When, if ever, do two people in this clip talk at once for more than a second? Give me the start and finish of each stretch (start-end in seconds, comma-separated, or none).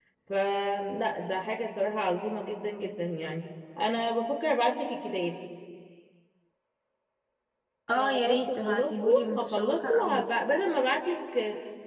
8.0-10.3